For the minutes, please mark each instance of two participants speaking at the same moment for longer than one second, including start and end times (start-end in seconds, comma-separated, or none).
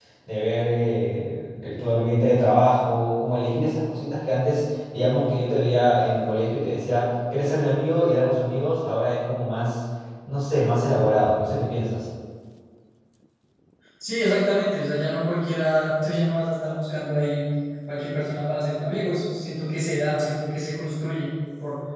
none